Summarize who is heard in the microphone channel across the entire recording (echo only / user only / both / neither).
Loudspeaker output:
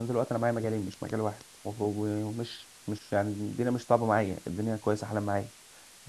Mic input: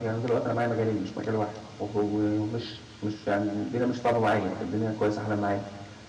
echo only